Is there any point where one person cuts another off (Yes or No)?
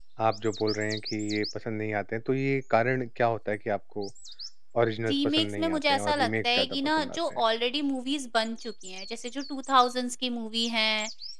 Yes